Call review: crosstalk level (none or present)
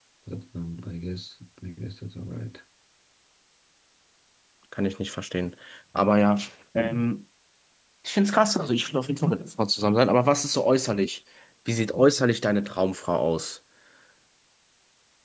none